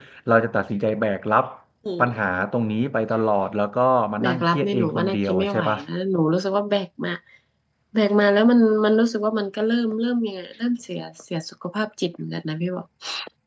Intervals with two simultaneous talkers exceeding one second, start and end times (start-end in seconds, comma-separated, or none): 4.2-5.8